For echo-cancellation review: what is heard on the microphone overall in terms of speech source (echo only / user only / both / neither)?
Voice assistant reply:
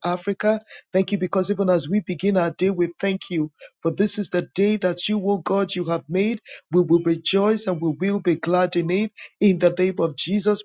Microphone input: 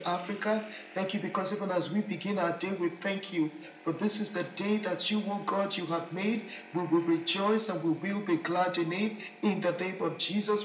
echo only